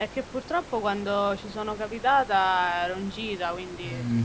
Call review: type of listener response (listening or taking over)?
taking over